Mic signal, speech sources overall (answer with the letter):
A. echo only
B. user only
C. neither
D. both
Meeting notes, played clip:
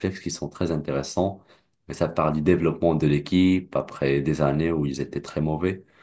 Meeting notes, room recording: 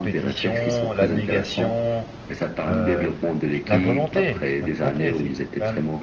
D